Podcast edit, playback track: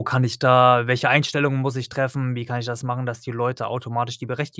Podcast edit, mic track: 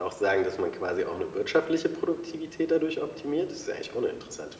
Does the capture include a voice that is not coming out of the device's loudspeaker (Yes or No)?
Yes